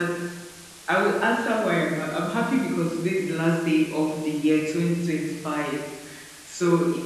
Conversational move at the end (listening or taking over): listening